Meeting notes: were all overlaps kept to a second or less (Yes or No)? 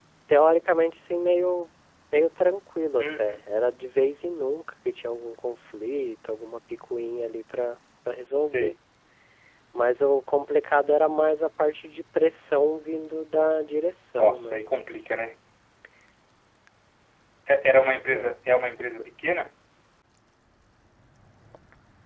Yes